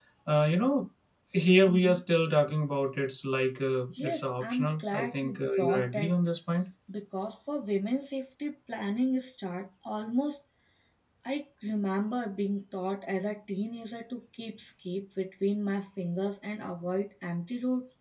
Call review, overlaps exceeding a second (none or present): present